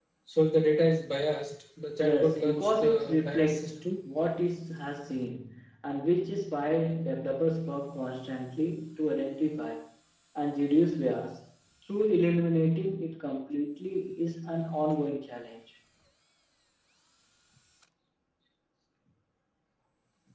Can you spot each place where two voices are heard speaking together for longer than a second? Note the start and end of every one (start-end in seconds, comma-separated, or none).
2.0-3.9